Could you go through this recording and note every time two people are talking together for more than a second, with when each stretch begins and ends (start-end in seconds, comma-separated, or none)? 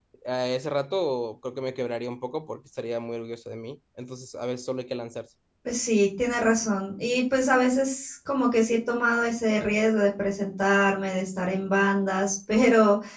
none